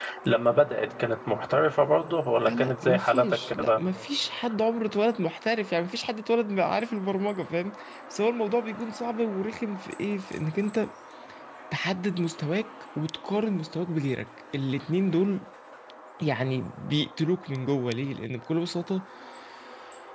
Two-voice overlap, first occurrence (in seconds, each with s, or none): 2.5 s